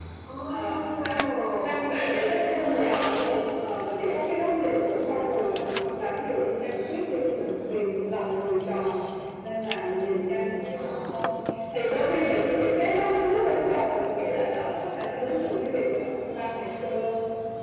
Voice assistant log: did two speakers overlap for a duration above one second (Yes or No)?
Yes